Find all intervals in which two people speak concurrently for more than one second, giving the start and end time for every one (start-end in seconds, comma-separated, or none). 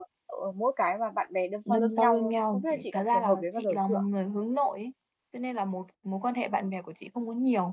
1.7-4.0